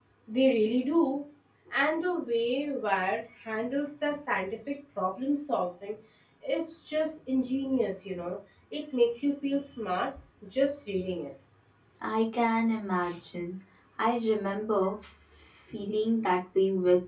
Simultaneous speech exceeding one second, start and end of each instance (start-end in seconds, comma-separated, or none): none